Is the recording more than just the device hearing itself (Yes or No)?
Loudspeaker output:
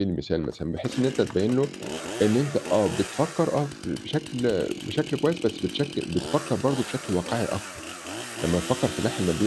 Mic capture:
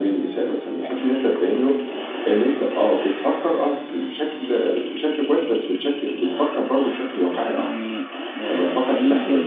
Yes